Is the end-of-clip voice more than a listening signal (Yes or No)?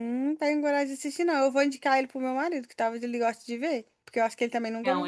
Yes